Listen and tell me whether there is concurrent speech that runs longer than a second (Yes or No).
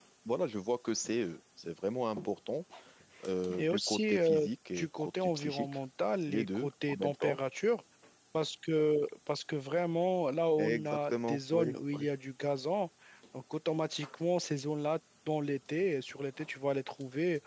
Yes